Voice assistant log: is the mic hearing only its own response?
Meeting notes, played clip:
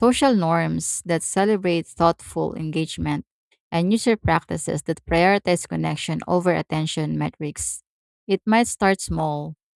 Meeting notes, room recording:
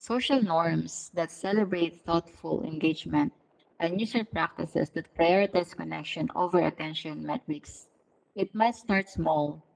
Yes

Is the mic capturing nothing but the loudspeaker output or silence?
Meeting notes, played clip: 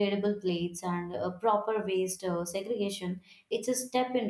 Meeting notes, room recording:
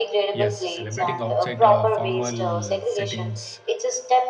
No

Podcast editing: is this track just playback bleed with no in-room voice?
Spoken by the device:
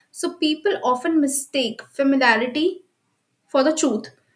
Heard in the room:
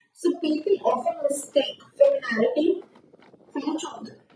Yes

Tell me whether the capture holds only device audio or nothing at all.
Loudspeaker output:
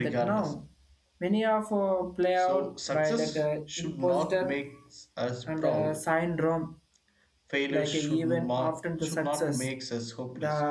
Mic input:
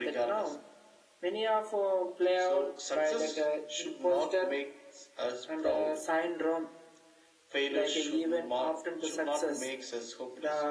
Yes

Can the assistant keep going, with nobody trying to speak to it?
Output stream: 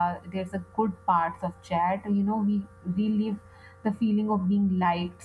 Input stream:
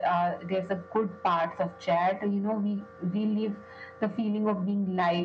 Yes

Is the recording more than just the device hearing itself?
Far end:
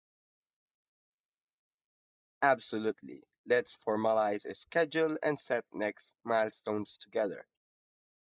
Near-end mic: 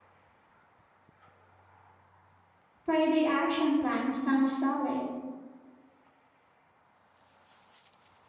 Yes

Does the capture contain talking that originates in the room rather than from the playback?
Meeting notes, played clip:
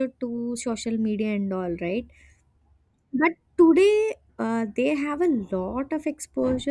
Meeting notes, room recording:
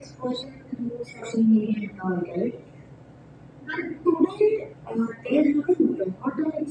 No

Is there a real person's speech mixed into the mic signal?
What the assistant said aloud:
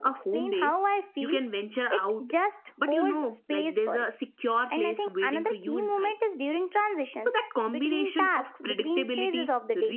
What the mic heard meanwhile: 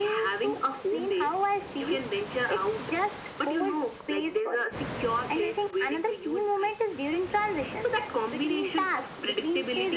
No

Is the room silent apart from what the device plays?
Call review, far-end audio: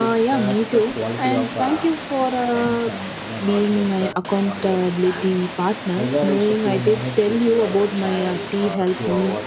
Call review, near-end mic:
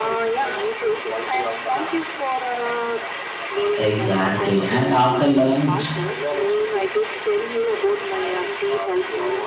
No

